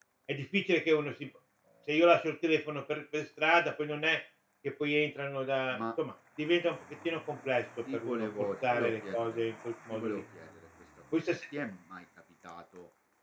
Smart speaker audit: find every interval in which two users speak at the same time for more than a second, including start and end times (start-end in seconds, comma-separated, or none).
7.9-9.4